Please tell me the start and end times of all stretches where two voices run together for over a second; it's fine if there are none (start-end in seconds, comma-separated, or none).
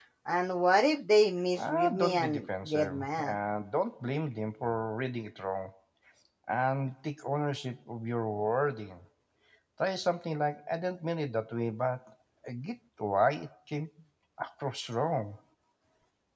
1.6-3.4